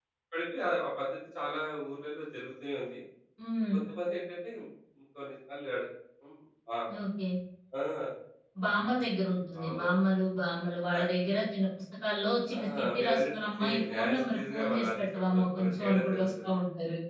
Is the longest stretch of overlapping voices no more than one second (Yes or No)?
No